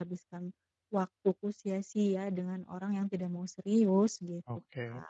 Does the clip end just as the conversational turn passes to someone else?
Yes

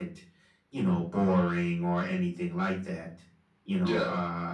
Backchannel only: Yes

